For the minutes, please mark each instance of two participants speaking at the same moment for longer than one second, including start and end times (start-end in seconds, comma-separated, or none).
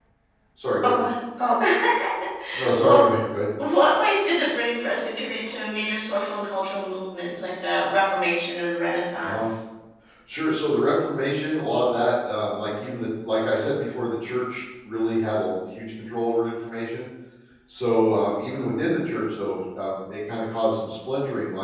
none